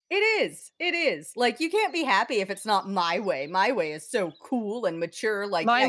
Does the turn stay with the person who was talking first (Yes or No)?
No